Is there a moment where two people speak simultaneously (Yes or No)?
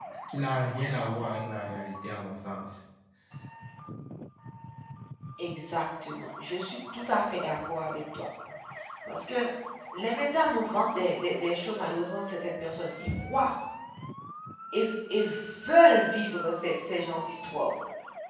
No